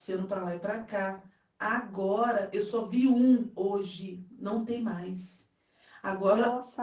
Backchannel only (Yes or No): Yes